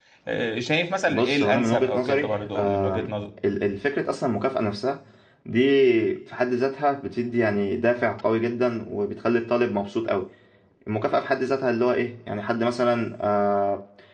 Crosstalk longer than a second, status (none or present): present